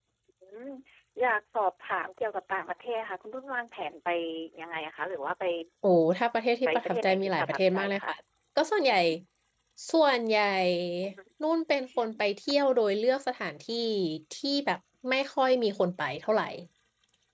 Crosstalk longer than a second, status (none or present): present